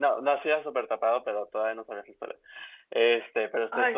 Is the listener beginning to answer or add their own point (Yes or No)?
No